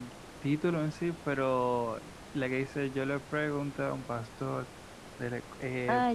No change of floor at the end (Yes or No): No